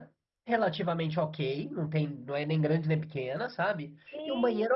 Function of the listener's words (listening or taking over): listening